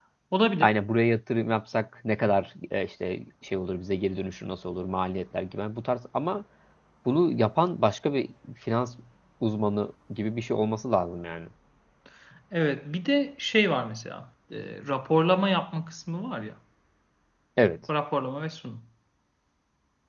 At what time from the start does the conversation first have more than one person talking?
none

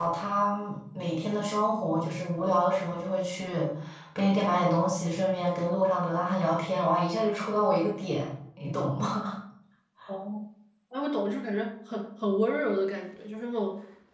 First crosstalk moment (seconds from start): none

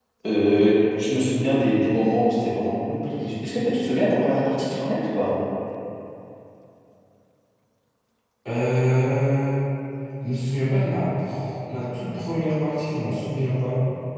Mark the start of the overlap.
none

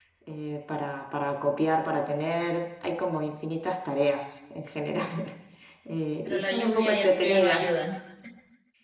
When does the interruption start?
6 s

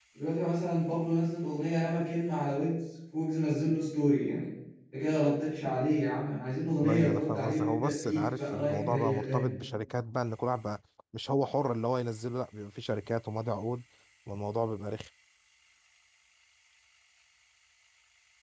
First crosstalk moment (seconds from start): 7 s

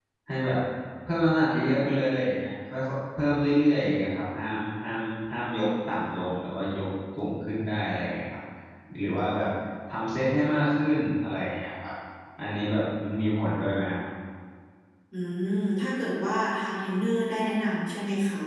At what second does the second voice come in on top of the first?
none

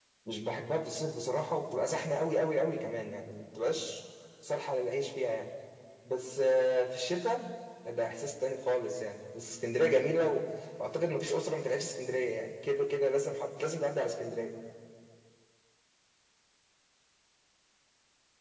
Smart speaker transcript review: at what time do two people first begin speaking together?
none

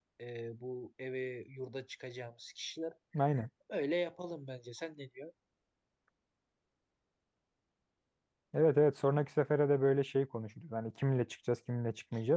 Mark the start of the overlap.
none

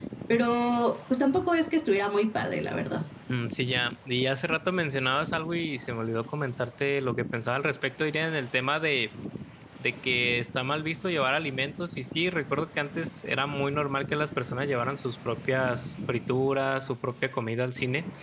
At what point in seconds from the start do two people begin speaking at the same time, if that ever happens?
none

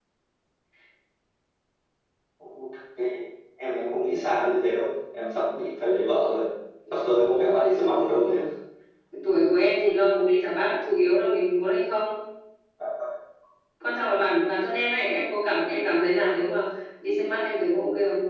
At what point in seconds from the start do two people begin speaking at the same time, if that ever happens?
7 s

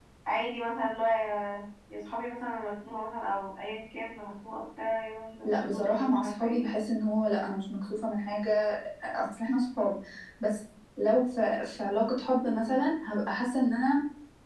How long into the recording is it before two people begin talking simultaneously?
5 s

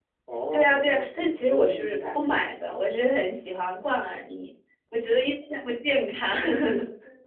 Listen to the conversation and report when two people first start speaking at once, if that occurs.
1 s

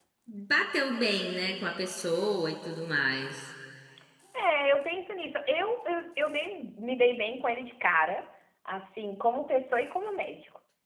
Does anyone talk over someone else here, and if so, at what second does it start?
none

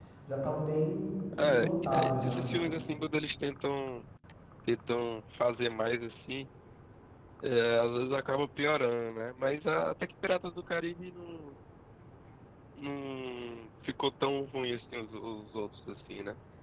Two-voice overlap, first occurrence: 1 s

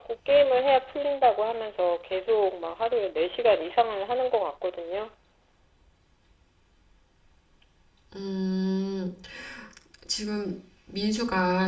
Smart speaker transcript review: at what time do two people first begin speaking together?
none

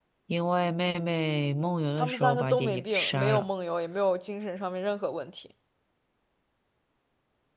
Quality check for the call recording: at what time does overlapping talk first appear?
2 s

